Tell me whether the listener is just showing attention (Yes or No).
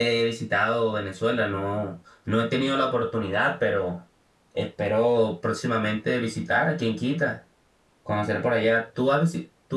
Yes